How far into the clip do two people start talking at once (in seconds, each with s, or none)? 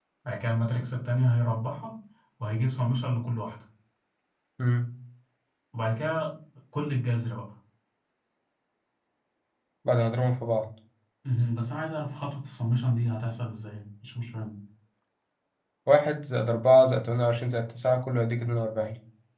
none